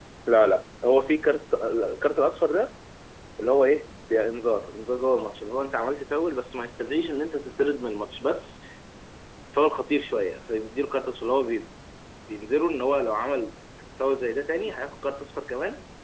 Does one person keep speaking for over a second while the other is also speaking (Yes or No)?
No